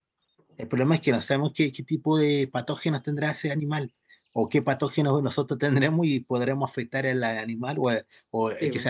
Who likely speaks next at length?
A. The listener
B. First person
B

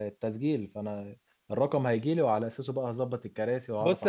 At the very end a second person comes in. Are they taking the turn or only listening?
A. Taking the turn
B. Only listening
A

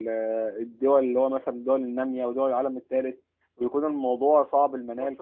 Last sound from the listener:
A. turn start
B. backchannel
A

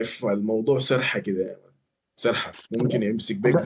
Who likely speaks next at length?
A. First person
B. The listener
A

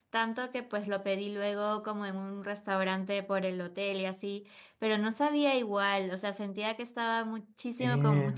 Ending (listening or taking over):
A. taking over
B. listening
B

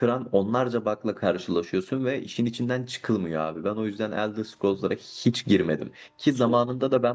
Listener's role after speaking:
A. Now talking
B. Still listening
B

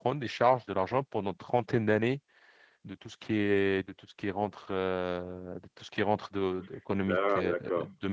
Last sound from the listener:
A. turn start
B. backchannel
B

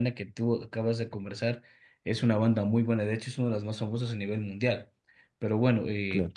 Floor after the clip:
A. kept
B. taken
A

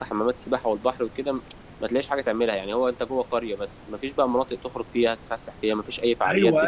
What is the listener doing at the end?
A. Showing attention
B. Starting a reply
B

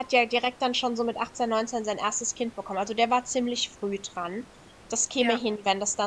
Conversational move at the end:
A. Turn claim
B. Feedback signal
B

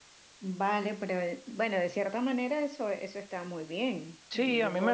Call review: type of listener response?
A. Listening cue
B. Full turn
B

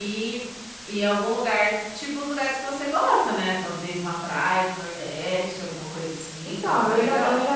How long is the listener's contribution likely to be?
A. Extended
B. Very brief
A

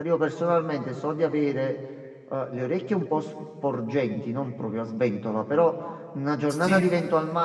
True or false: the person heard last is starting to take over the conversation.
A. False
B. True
A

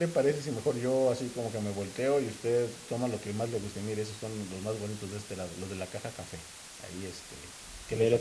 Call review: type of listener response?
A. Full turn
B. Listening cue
A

